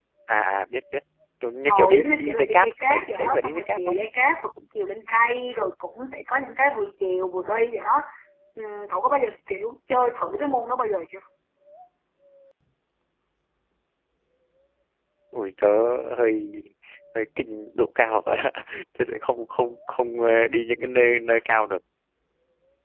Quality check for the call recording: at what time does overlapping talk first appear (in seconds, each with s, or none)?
1.7 s